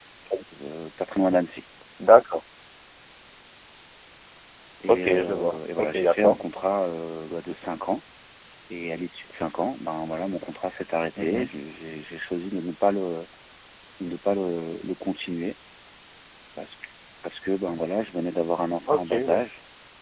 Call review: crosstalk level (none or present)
present